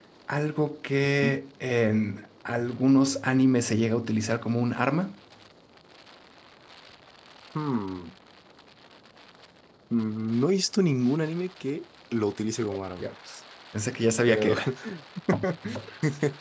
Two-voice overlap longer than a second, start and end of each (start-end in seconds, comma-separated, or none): none